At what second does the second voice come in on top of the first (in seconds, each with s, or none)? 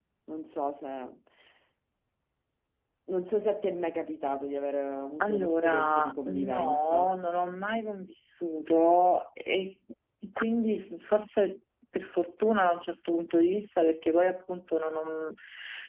5.2 s